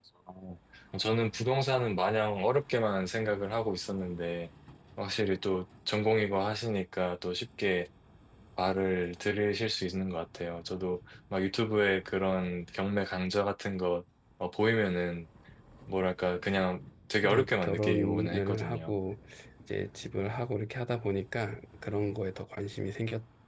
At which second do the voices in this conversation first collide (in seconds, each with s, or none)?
17.2 s